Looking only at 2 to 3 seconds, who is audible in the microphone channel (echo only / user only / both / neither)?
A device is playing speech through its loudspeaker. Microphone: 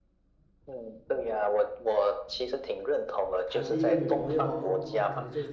echo only